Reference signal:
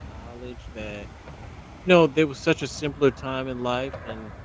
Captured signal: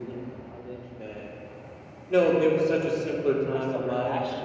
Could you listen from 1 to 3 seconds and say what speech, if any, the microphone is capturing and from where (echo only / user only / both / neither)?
echo only